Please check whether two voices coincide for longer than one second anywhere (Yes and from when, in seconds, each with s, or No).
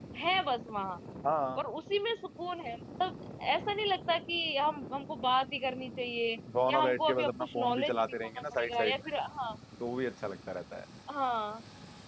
Yes, from 6.5 s